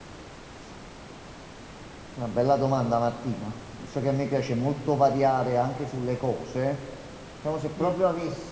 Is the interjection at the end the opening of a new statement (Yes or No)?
No